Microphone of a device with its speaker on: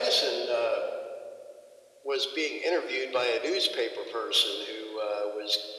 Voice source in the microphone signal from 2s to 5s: echo only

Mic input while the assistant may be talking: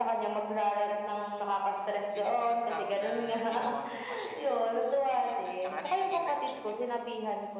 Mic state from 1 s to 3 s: both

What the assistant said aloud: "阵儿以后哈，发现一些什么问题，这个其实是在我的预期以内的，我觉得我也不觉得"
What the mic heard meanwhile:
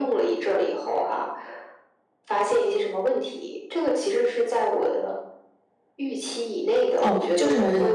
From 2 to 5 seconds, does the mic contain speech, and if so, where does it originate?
echo only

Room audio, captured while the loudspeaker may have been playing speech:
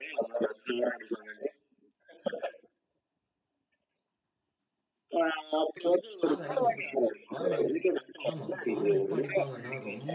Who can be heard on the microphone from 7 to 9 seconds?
both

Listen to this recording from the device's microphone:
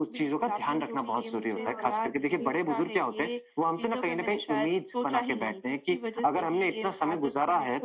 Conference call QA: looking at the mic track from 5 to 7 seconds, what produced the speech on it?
echo only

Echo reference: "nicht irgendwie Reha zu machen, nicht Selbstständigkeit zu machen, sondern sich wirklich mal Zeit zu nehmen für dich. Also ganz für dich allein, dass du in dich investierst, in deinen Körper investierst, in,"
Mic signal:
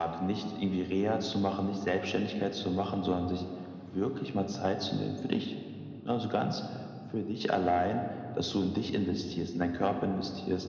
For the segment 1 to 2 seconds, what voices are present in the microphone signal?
echo only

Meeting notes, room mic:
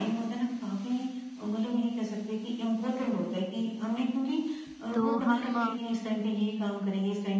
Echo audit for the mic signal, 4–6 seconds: both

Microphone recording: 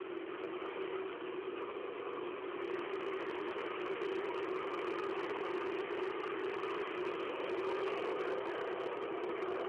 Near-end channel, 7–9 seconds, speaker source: neither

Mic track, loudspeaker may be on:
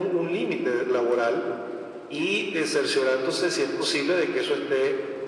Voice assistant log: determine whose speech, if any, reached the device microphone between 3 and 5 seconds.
echo only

